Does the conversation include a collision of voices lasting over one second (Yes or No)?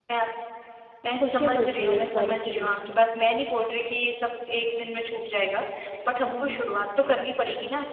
Yes